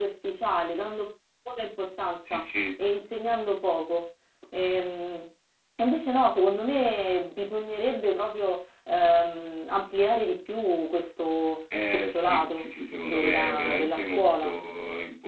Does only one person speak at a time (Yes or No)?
No